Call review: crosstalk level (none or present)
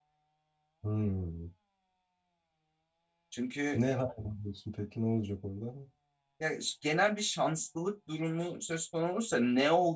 none